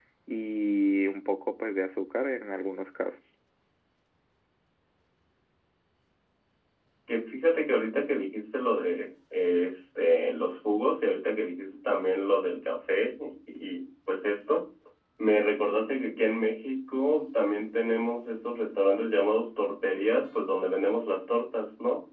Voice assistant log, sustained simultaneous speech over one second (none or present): none